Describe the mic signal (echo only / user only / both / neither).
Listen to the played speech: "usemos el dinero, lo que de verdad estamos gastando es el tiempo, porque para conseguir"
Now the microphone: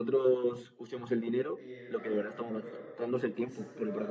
both